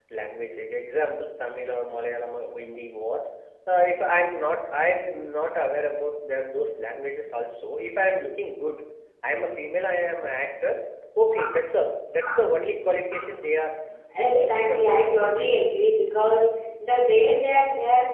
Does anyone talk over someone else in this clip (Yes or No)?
Yes